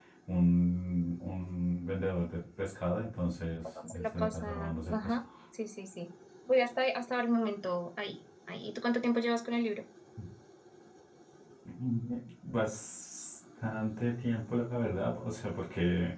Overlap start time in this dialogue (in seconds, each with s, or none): 3.6 s